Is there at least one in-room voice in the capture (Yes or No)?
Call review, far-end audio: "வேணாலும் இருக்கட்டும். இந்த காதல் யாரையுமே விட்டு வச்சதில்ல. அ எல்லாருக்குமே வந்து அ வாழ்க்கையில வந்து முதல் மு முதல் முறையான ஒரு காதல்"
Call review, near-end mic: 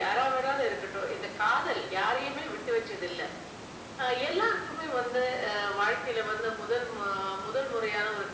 No